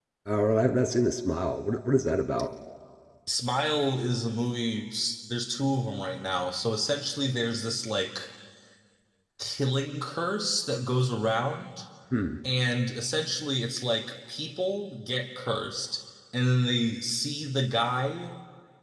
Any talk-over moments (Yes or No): No